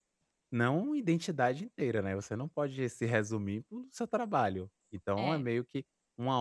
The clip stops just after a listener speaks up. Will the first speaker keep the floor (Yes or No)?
Yes